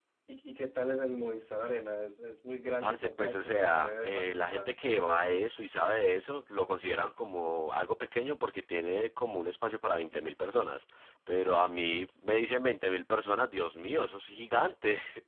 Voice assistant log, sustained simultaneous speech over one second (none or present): present